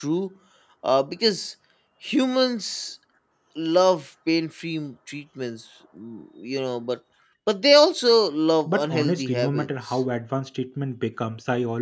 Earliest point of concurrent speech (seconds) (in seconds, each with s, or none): 8.7 s